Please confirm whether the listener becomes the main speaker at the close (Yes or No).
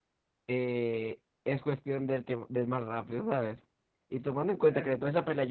No